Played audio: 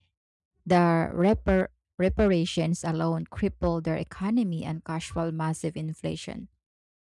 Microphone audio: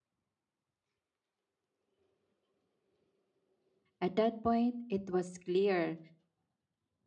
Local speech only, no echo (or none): At that point, it was clear